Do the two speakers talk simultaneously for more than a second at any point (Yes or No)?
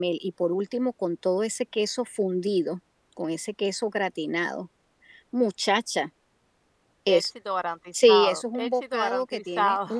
Yes